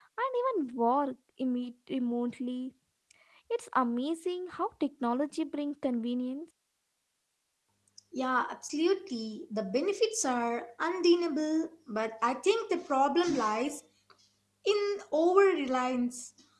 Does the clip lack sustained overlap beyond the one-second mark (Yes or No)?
Yes